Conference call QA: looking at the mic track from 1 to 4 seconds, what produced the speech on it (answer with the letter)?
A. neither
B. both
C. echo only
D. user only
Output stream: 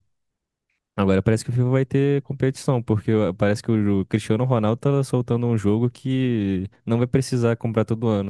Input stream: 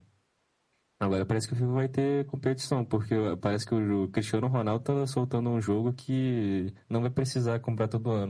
C